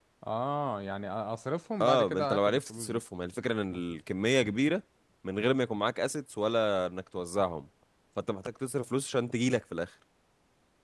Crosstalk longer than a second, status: present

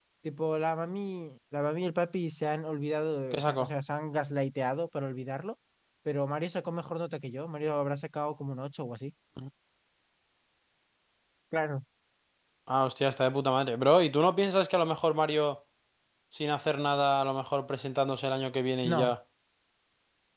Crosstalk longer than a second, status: none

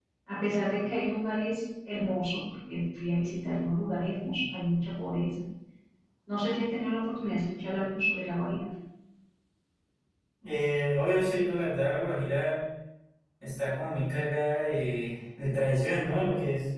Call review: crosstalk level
none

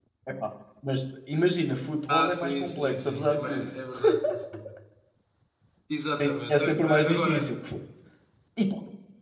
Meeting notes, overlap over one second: present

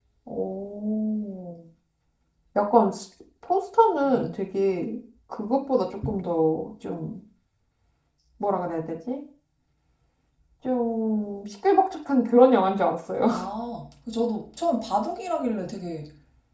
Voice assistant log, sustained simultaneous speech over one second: none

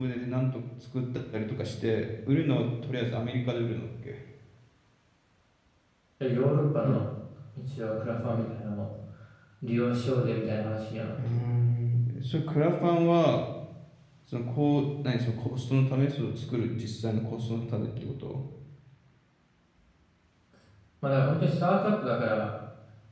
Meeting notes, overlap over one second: none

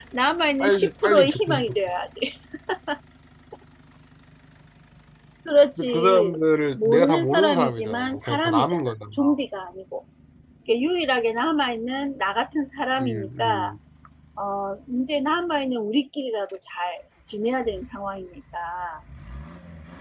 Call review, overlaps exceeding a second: present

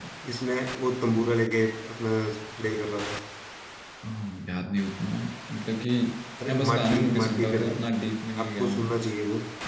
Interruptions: present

